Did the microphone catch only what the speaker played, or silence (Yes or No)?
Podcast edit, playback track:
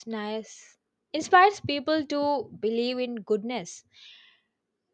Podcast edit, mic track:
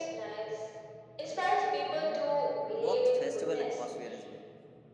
No